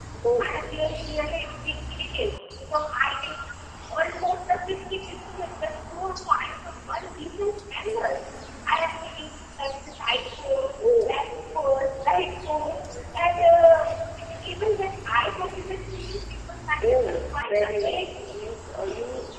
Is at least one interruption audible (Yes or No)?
Yes